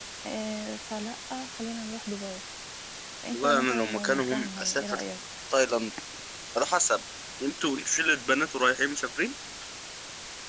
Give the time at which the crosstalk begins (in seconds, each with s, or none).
3.3 s